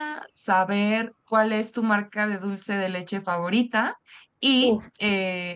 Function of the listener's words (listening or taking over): listening